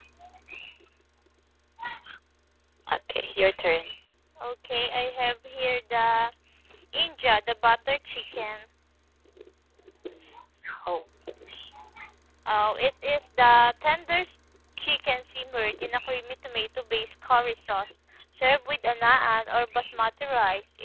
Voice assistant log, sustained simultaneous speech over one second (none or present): none